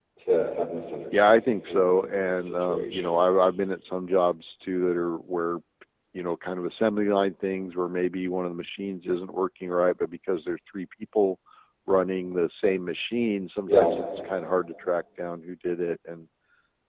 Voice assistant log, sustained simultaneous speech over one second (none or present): present